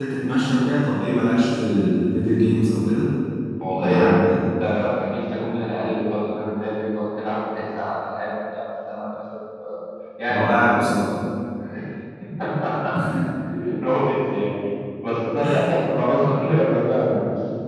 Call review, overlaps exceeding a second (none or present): none